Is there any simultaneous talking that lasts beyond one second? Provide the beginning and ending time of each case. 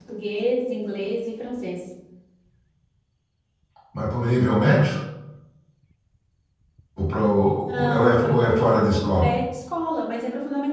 8.0-9.3

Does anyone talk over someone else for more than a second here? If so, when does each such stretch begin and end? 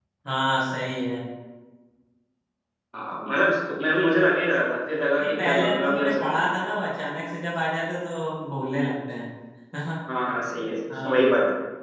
5.2-6.5

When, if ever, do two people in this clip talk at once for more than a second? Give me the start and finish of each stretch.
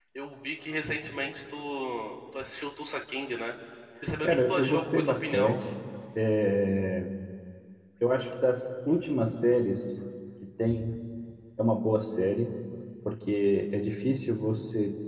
4.2-5.6

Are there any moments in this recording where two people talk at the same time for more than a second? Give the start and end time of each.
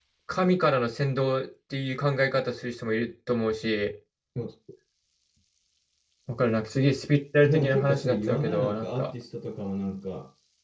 7.4-9.1

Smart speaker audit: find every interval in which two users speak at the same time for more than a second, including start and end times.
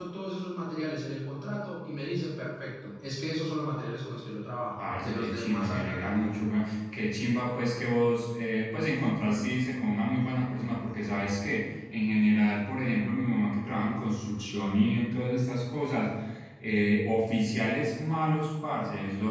4.8-6.4

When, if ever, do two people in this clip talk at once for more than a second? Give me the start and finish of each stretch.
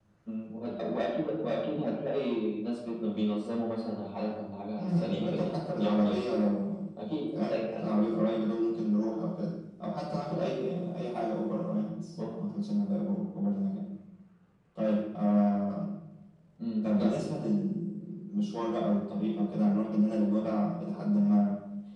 4.8-6.2

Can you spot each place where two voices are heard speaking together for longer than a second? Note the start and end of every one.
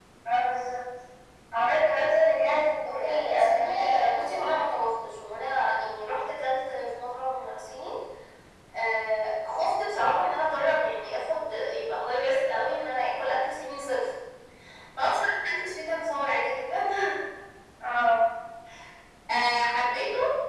2.9-4.7

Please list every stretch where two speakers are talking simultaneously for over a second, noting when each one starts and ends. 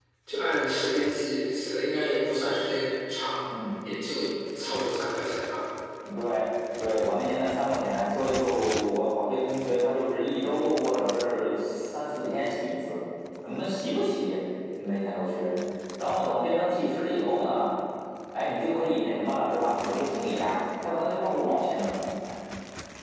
none

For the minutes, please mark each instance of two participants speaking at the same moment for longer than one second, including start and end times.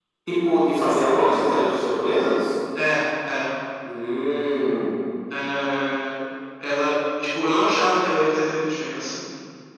none

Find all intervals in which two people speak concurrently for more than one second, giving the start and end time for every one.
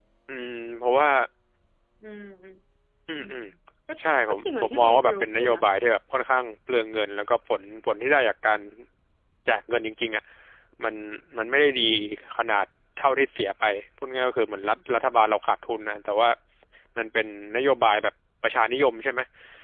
4.3-5.6

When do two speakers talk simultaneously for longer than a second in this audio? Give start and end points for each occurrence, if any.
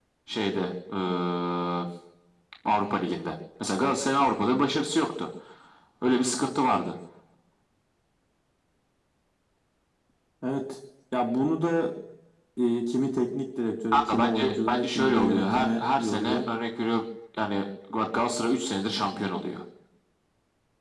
13.9-16.4

